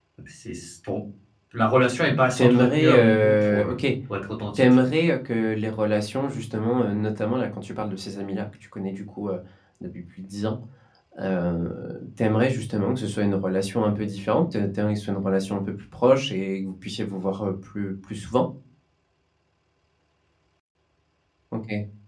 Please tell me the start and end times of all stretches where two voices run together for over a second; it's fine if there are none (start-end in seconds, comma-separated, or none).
2.4-3.8